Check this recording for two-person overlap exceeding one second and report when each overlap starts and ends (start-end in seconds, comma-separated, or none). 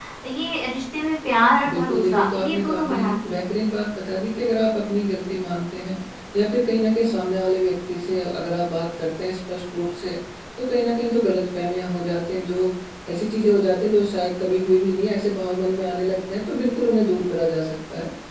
1.7-3.5